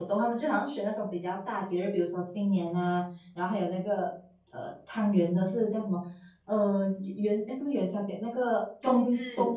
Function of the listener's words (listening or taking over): listening